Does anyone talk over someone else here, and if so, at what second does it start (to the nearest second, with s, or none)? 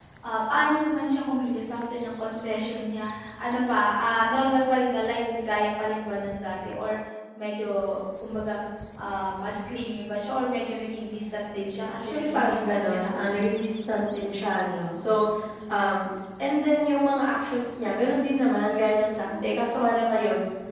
12 s